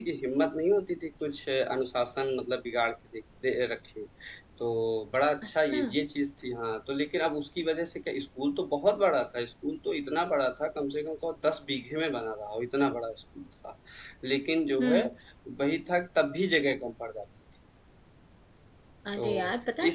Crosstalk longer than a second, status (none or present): none